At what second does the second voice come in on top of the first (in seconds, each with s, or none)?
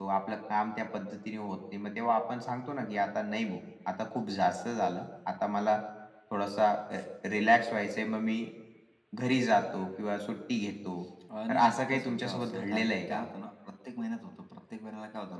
11.5 s